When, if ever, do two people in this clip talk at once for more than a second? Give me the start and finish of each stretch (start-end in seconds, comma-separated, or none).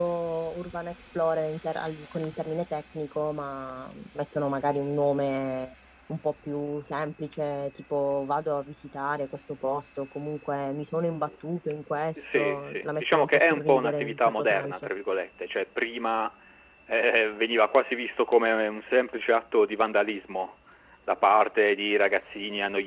12.3-14.9